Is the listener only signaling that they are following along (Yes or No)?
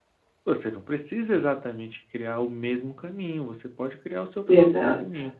Yes